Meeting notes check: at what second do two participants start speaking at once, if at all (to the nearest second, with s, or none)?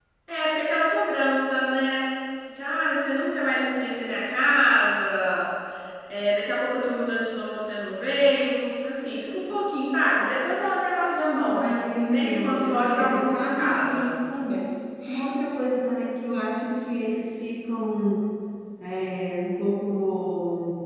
11 s